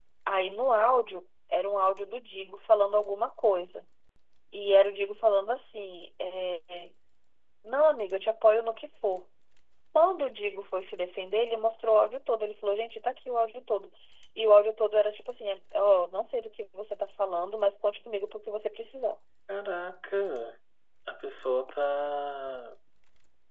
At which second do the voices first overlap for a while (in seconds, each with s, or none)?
none